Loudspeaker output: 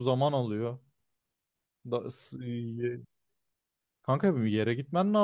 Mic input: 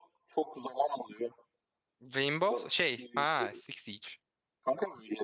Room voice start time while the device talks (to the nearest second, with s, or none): 2 s